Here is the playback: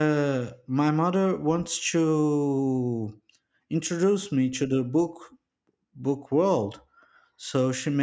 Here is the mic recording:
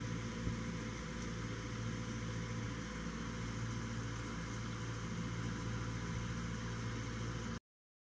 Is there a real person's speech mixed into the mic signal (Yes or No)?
No